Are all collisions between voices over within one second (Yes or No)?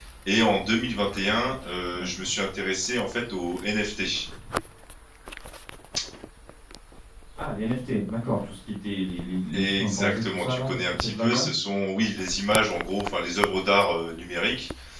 No